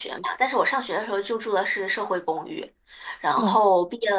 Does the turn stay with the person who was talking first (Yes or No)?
Yes